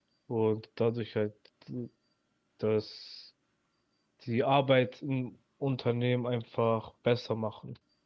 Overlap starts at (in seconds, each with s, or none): none